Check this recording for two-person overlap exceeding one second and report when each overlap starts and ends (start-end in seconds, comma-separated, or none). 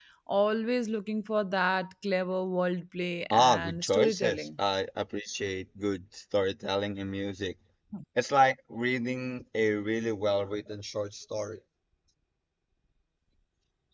3.3-4.6